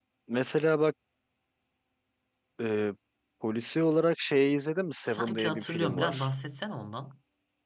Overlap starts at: 5.0 s

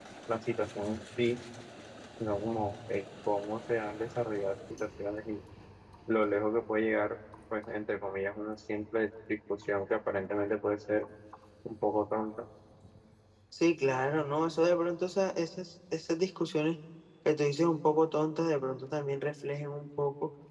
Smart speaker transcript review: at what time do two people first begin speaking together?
none

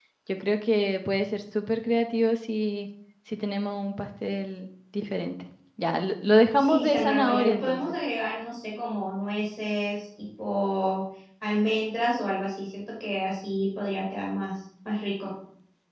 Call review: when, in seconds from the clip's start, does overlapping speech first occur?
6.6 s

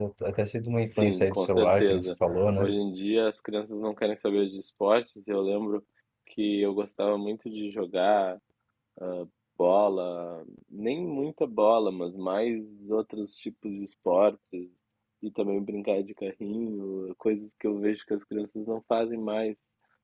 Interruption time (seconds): 0.8 s

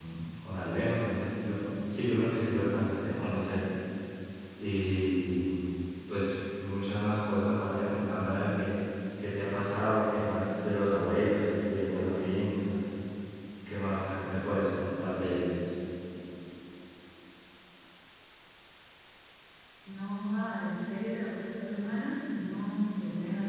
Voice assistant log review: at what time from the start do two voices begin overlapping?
none

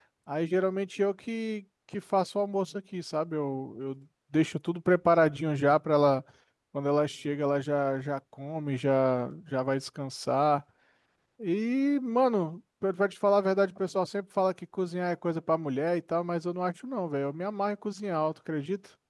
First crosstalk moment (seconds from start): none

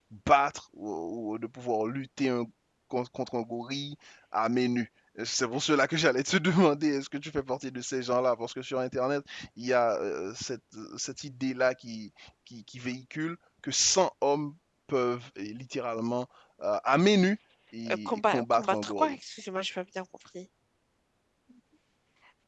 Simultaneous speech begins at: 17.9 s

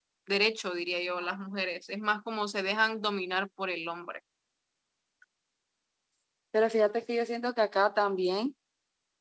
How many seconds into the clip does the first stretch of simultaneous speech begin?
none

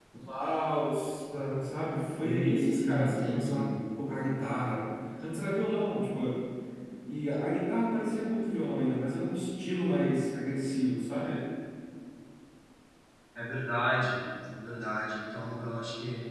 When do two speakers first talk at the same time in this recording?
2.2 s

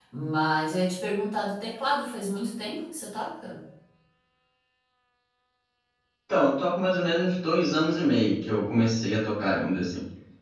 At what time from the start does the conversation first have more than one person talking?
none

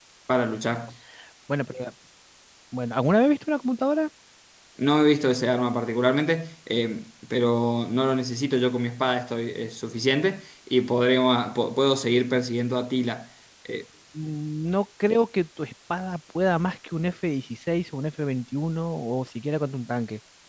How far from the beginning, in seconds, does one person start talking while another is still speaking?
none

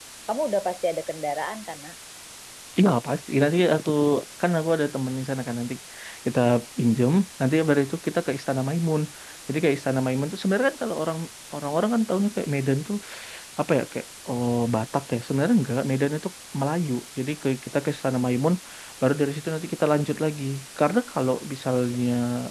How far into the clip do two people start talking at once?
none

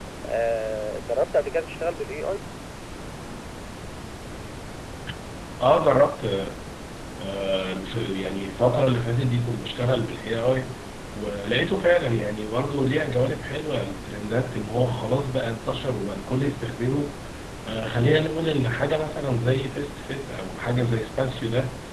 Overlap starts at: none

